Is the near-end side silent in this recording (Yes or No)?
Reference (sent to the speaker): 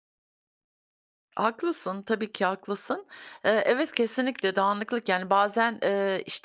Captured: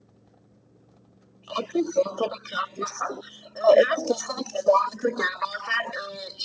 Yes